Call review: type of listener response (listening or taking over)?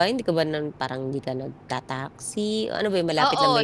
taking over